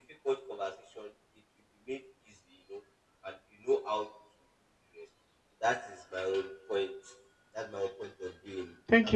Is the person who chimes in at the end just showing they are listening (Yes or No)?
No